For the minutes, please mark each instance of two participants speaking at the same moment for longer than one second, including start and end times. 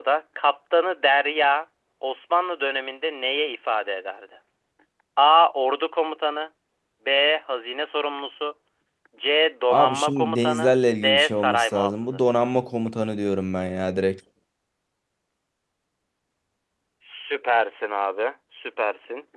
9.7-12.2

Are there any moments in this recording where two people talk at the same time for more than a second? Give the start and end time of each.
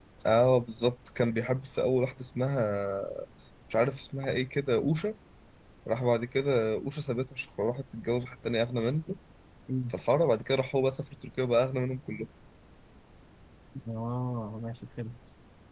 none

